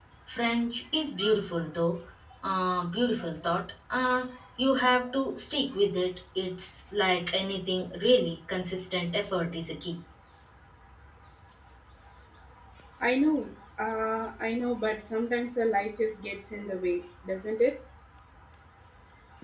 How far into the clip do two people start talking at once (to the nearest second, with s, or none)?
none